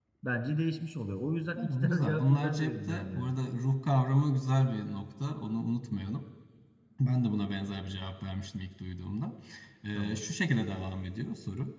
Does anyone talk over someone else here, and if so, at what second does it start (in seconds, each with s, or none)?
1.6 s